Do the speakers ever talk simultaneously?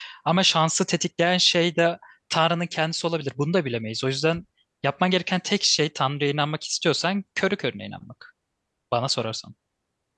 No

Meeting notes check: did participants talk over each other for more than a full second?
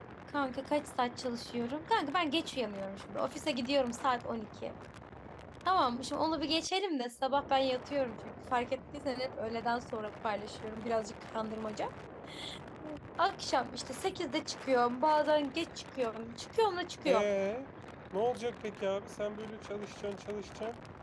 No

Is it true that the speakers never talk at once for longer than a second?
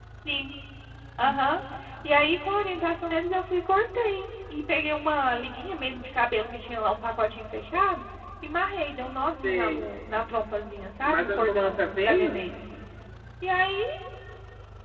No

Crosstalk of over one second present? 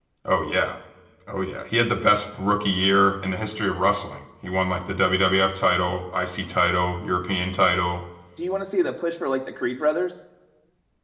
No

